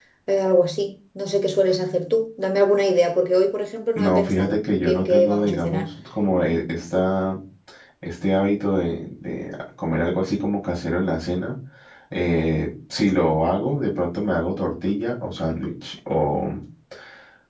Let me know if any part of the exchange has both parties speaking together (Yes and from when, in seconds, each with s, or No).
Yes, from 4.0 s